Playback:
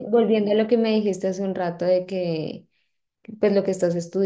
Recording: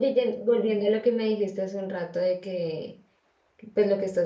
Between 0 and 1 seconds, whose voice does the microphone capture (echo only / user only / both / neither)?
echo only